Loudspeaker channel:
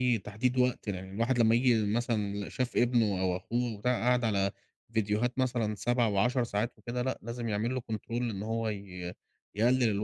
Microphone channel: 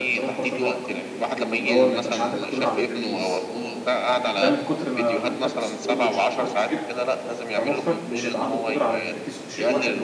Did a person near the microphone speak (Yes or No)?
Yes